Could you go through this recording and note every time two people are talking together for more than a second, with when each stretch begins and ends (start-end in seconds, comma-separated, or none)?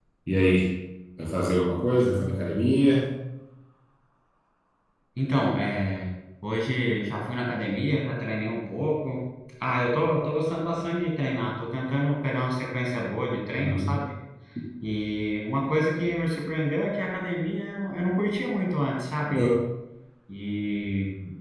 none